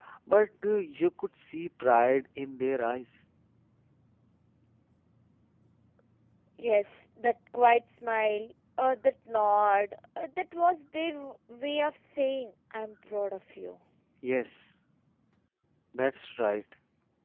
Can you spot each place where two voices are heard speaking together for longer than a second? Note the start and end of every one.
none

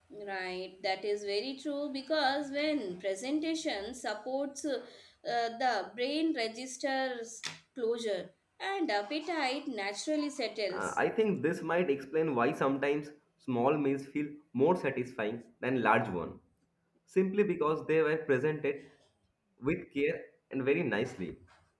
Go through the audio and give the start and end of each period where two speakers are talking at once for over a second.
none

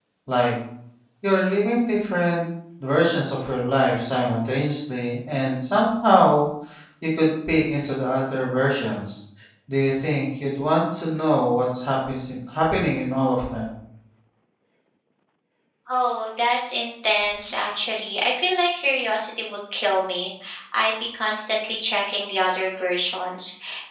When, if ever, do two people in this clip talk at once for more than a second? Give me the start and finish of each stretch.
none

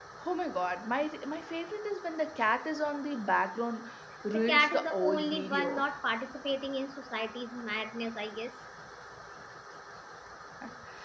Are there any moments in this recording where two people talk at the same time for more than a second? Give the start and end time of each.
4.3-5.7

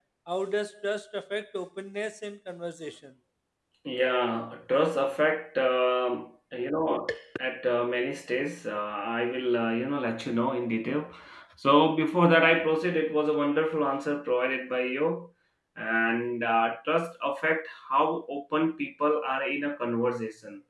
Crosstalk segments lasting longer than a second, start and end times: none

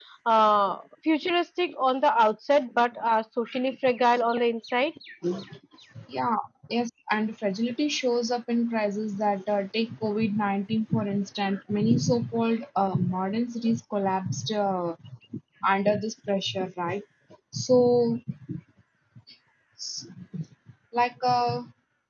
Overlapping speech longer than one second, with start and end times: none

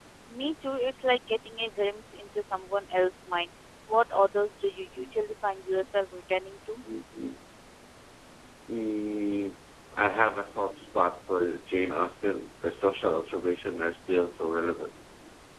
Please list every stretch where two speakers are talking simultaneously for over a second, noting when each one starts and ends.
none

